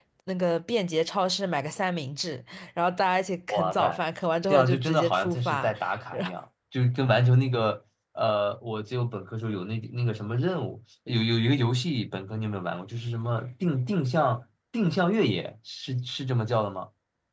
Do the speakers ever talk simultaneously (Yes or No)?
Yes